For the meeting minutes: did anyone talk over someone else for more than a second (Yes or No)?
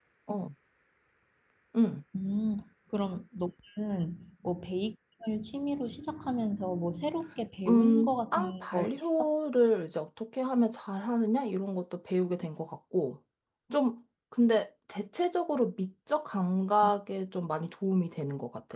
Yes